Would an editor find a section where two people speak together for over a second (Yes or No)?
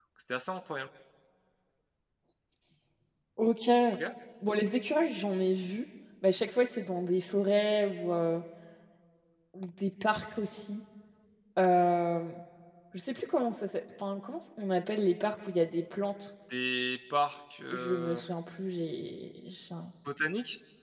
No